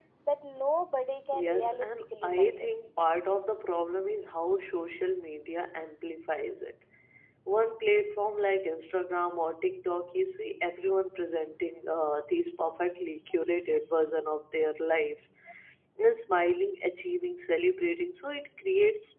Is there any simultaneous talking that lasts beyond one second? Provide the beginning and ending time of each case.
1.3-2.7

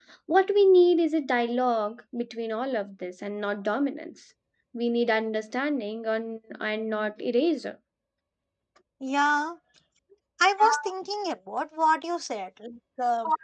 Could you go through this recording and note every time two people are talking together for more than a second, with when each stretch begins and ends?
none

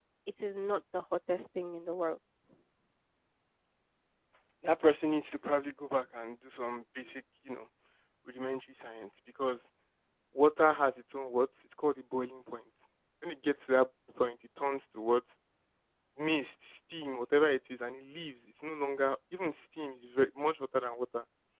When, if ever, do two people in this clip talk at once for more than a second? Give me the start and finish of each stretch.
none

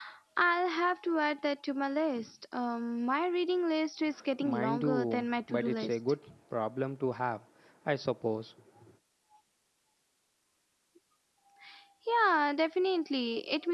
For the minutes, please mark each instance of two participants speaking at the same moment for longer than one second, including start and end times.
4.4-6.0

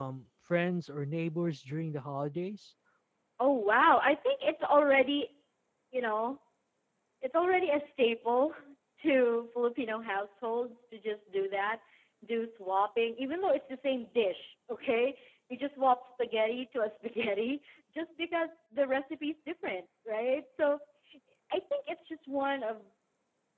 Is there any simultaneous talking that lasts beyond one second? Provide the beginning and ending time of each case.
none

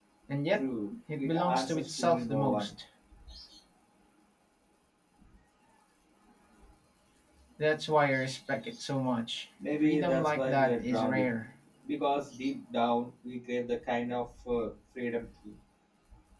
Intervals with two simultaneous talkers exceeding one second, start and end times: 1.2-2.7, 9.8-11.2

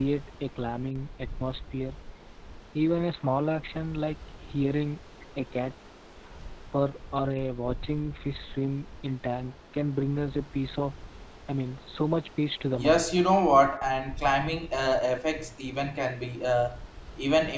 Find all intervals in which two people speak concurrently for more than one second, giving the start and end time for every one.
none

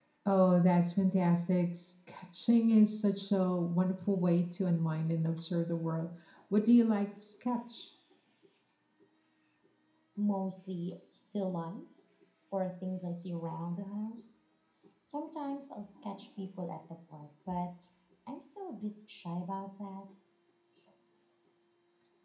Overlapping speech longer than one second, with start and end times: none

